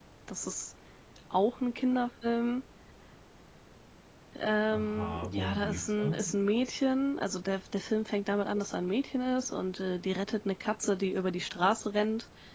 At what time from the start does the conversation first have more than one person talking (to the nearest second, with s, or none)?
5 s